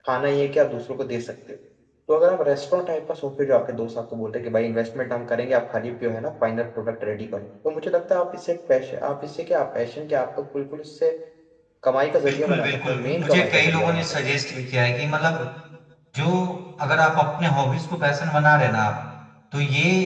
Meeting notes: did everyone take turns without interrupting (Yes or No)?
No